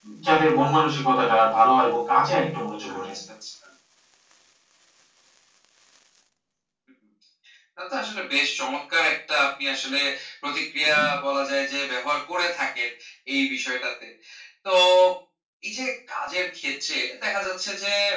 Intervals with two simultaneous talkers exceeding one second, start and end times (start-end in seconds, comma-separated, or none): none